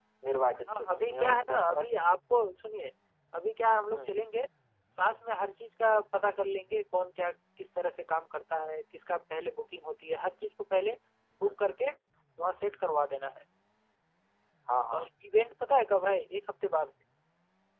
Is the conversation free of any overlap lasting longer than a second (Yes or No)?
No